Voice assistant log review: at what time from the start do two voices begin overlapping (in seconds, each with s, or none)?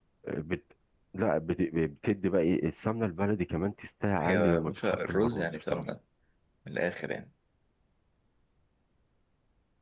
4.2 s